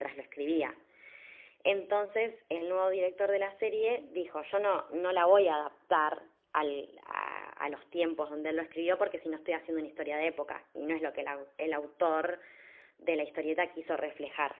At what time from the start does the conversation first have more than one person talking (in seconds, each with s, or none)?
none